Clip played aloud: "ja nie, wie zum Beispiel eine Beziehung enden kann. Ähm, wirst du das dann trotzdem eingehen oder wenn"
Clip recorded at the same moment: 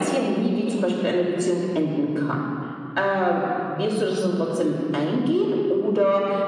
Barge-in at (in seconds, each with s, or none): none